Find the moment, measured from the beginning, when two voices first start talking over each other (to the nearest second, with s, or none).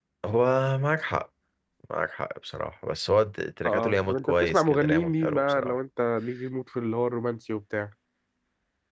4 s